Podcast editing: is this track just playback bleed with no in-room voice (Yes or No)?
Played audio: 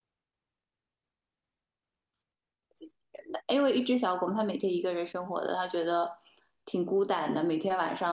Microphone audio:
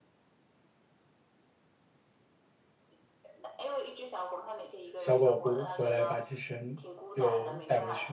No